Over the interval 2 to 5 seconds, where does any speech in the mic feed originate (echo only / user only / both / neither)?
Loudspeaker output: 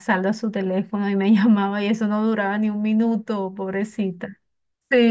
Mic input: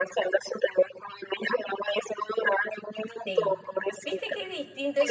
both